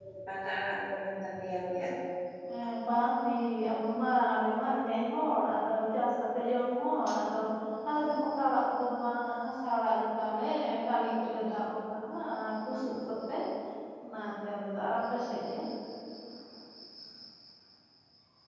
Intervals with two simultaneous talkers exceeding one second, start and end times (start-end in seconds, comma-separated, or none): none